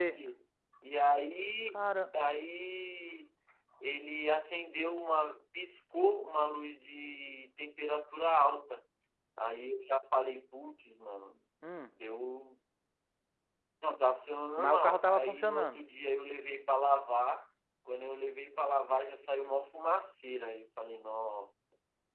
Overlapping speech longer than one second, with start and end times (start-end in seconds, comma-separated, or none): 14.6-15.8